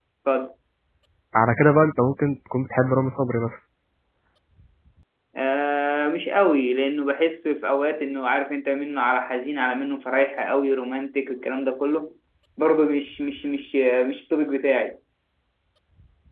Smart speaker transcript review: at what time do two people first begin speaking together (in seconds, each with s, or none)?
none